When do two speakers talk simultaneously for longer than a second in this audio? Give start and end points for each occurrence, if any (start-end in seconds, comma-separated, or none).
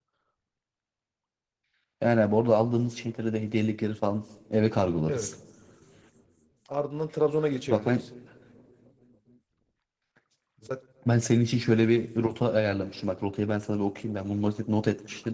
none